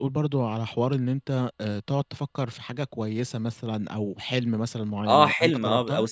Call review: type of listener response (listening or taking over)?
taking over